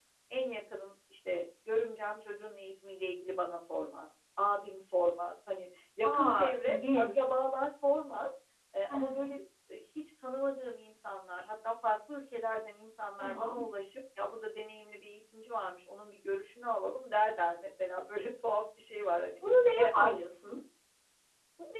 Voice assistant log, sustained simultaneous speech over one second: present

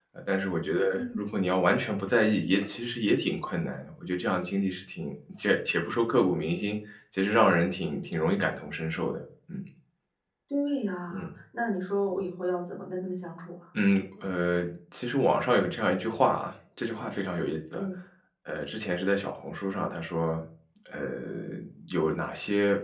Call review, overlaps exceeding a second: none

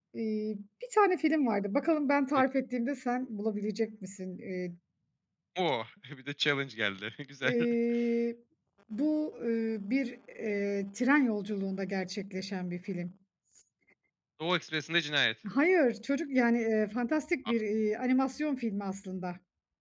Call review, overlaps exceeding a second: none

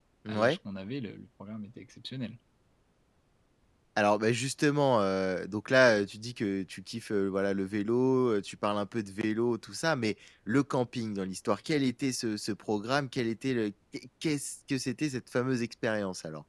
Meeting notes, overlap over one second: none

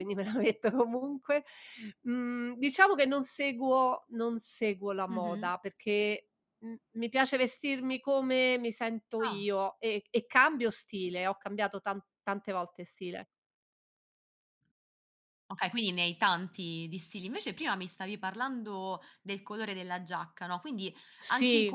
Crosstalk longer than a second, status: none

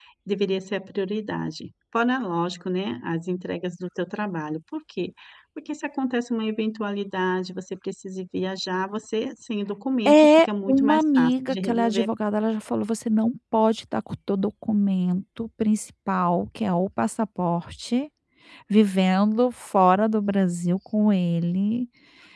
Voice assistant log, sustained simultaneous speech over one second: present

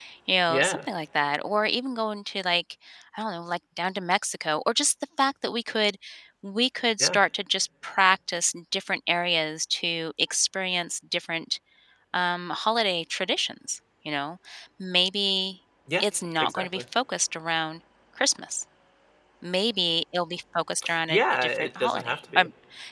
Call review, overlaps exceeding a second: present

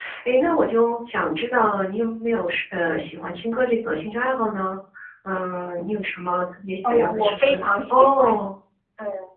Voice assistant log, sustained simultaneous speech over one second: present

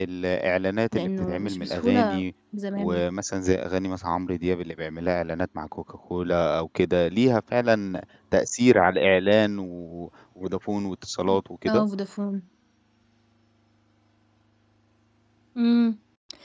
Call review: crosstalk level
present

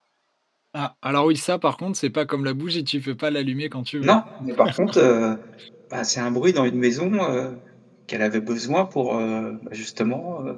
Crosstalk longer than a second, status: none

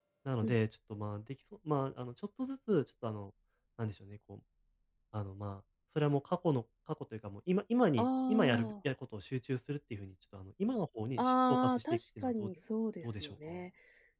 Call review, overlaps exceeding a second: present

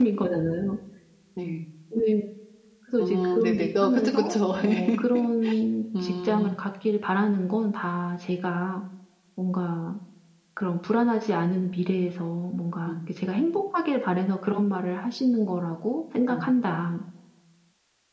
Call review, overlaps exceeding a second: present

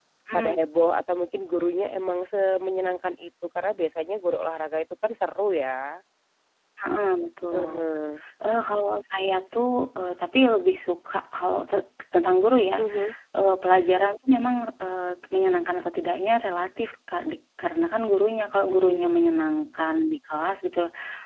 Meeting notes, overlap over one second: none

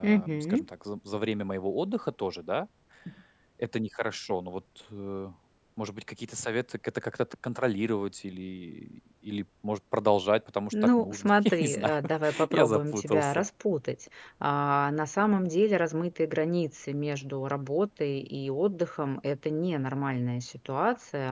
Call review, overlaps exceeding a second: present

